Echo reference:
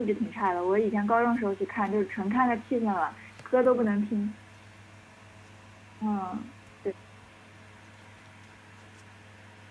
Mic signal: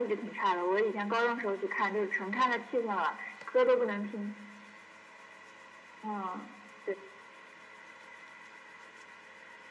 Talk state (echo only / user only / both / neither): echo only